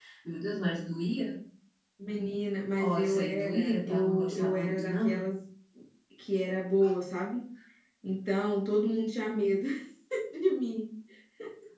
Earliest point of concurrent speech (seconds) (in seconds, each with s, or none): 2.8 s